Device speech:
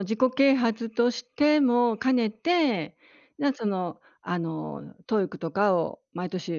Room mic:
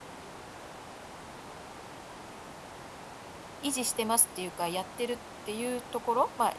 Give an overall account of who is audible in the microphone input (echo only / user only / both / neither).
user only